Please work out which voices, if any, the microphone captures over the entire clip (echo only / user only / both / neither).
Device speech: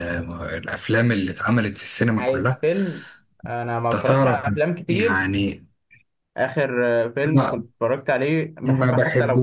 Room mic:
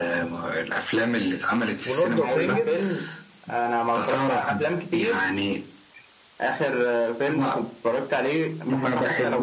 both